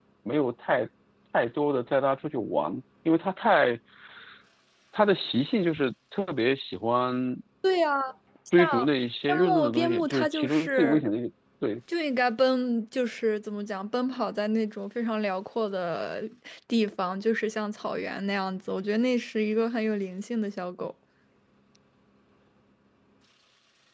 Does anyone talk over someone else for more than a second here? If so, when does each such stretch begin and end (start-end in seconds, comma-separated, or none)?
9.3-11.0